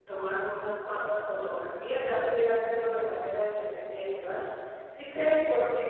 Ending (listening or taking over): listening